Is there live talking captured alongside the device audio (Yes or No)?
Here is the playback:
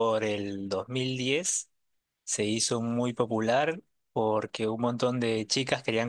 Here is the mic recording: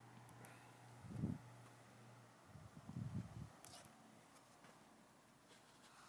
No